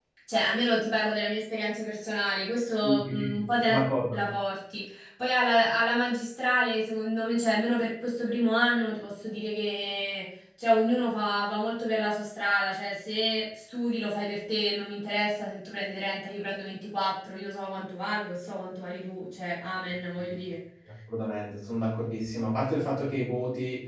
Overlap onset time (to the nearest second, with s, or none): 3 s